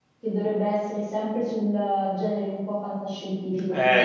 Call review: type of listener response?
taking over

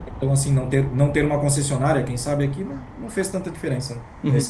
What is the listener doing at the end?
taking over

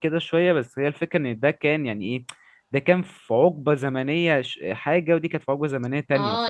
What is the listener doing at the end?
taking over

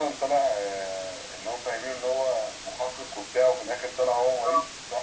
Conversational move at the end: taking over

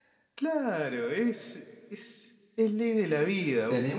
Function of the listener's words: taking over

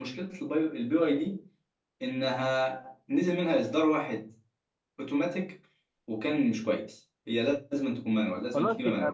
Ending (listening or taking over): taking over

